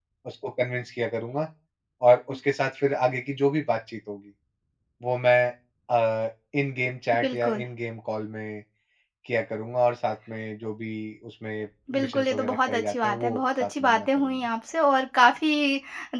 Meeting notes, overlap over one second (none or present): present